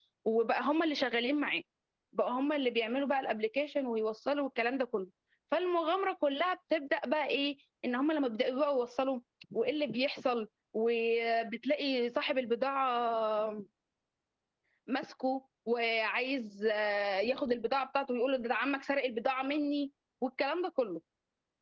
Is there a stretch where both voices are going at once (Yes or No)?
No